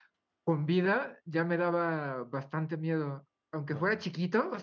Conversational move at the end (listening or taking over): listening